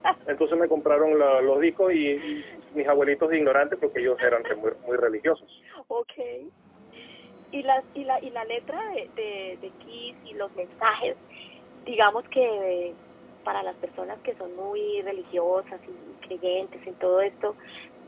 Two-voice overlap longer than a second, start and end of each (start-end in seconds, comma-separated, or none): none